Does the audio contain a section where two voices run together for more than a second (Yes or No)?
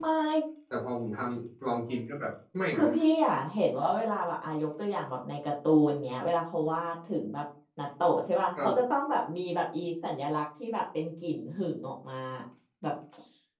No